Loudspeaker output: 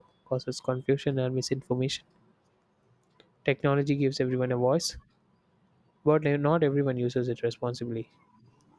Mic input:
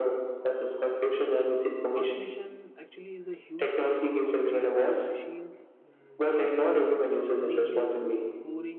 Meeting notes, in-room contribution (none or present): present